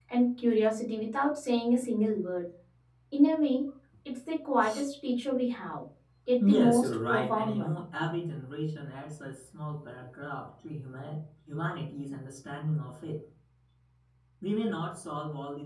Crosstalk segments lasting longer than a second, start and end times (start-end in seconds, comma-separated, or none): 6.4-7.7